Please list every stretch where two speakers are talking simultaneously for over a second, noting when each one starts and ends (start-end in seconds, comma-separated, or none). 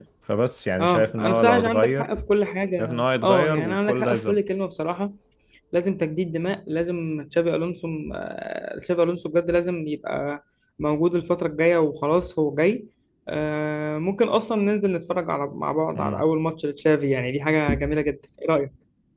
0.8-2.1, 2.8-4.4